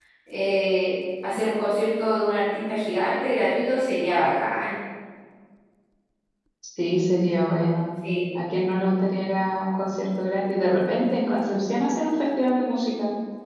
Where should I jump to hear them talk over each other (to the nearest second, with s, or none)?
none